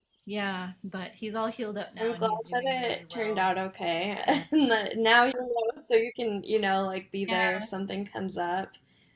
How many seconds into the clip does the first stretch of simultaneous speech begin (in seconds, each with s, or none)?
2.0 s